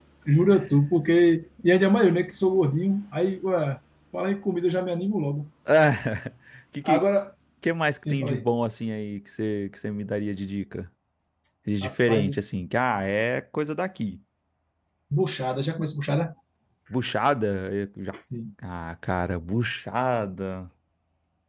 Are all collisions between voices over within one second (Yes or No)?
Yes